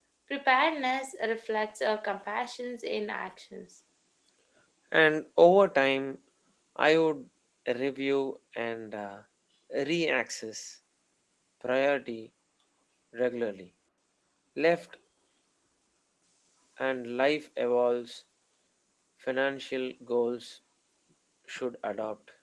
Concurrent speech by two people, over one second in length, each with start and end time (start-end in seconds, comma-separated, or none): none